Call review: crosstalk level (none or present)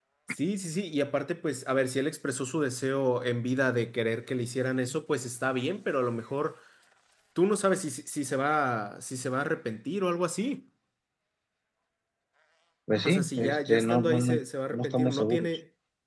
present